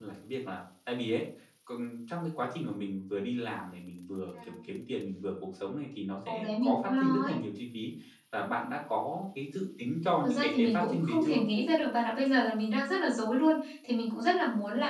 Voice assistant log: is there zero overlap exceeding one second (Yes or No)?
No